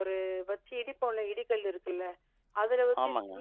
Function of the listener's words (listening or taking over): listening